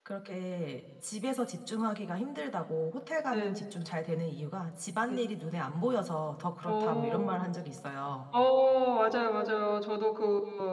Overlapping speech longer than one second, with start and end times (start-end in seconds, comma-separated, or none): none